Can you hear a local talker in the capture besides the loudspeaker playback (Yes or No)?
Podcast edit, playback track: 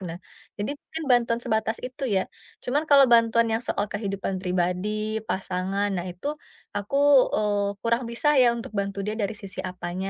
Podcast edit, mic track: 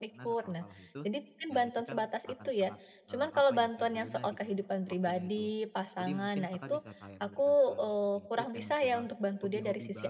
Yes